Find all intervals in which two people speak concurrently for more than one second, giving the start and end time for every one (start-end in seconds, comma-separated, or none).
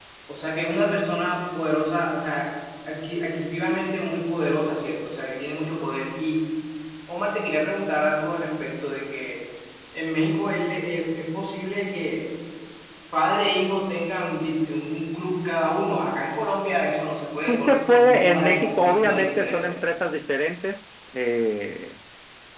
17.5-19.7